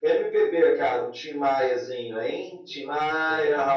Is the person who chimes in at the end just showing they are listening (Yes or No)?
No